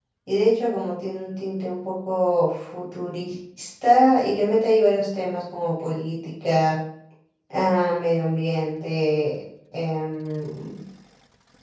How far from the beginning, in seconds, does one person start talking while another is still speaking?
none

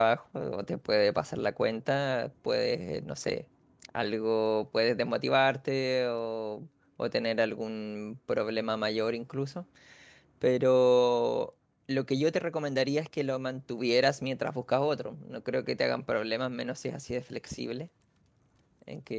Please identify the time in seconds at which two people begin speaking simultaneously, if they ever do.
none

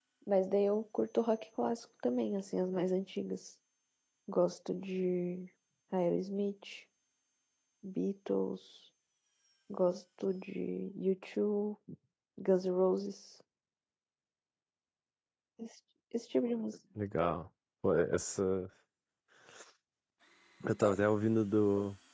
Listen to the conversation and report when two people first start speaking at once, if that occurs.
none

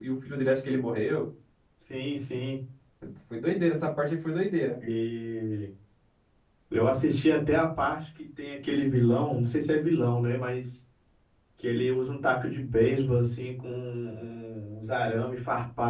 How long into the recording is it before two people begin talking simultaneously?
none

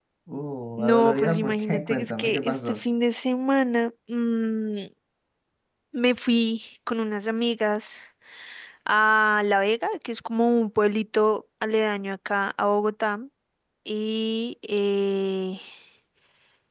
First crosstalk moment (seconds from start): 0.8 s

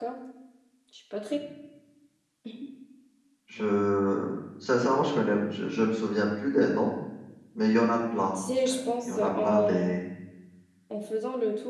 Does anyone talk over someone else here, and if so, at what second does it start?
8.3 s

